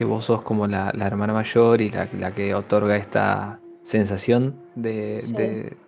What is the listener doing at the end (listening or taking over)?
listening